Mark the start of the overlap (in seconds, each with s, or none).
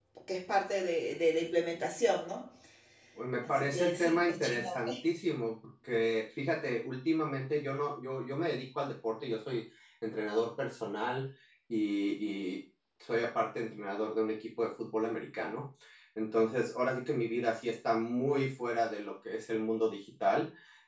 3.4 s